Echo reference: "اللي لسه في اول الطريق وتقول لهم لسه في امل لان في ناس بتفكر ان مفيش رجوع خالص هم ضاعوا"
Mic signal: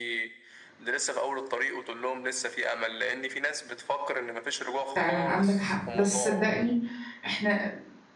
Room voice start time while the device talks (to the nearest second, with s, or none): 5 s